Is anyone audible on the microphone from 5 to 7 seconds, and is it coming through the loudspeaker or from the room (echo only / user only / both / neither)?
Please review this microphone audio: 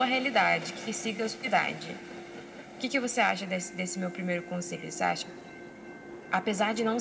echo only